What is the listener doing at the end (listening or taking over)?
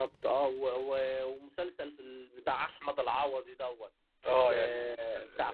listening